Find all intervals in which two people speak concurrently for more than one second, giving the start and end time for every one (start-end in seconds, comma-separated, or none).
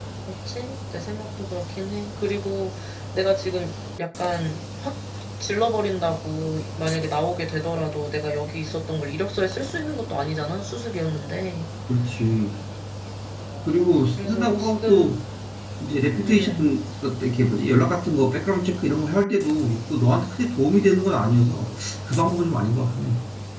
13.8-15.1